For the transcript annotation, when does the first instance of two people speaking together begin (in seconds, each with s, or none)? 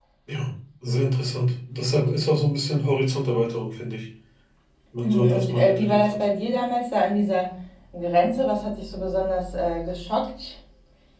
5.0 s